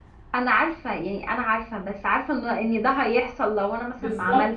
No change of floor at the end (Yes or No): No